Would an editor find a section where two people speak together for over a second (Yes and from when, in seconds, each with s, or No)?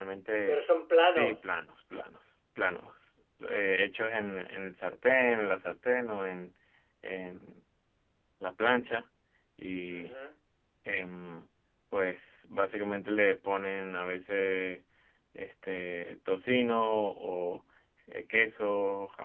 No